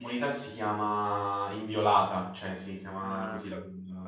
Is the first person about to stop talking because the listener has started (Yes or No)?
Yes